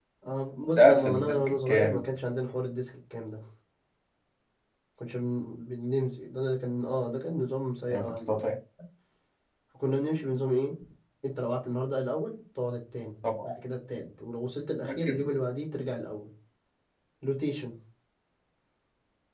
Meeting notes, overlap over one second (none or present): present